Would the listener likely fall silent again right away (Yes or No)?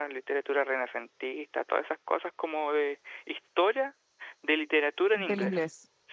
No